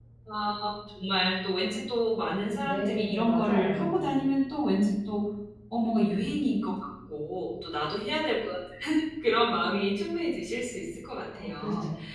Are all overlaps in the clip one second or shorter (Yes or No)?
No